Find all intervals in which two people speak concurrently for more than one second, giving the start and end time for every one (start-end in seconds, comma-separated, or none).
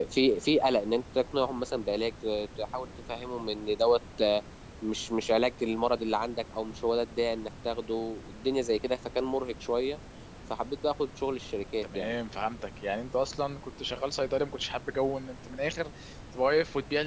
none